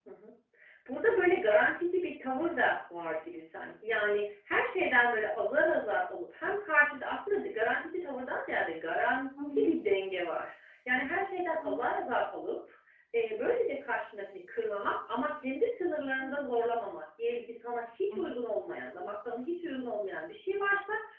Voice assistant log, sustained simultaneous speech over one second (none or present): none